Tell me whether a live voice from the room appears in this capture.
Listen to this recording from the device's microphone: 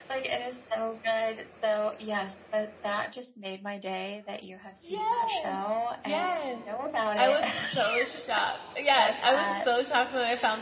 Yes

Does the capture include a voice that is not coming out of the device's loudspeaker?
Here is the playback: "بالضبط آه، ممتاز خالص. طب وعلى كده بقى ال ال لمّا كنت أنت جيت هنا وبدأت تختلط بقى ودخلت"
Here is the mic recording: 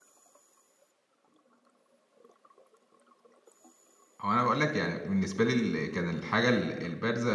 Yes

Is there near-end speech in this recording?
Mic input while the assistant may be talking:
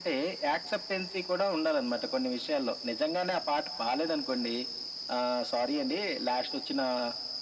No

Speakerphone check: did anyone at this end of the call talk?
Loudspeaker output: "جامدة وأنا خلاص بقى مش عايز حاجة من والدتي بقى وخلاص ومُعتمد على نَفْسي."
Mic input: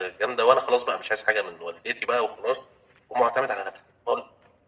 No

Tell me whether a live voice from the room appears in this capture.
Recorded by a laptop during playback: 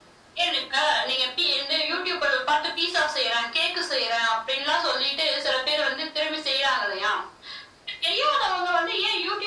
No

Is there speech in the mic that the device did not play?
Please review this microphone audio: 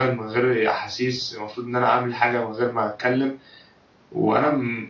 No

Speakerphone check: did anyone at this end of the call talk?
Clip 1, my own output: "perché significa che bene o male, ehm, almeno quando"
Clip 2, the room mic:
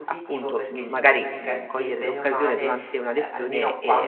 Yes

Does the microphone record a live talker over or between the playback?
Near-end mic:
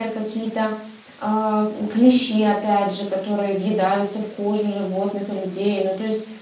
Yes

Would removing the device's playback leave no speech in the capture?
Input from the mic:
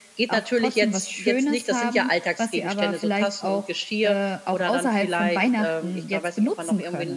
Yes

